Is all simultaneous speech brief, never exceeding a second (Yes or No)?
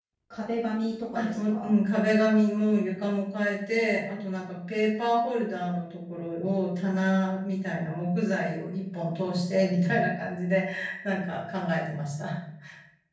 Yes